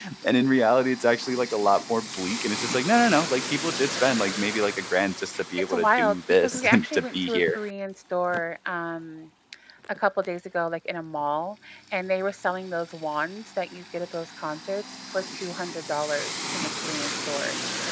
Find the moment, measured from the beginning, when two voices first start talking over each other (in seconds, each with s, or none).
5.3 s